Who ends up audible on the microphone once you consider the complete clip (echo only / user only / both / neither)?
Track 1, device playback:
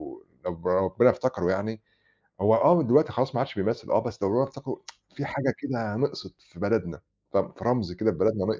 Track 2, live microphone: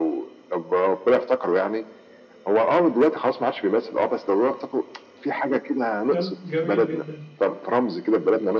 both